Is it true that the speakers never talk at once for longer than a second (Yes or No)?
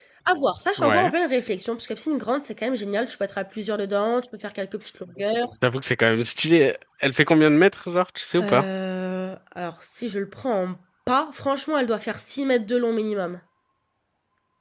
Yes